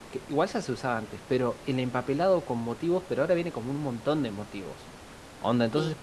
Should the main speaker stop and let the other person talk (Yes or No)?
No